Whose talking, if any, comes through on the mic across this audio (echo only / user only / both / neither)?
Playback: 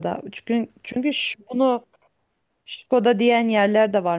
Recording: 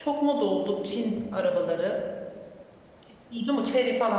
user only